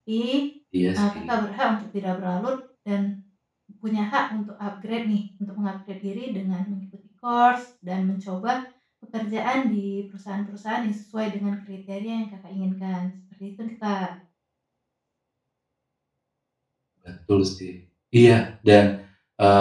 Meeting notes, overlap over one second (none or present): none